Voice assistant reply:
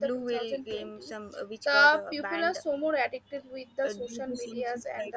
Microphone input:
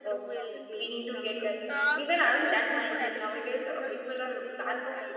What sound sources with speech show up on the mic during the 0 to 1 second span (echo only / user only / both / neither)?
both